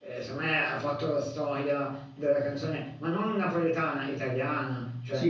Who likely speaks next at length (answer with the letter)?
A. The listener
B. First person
A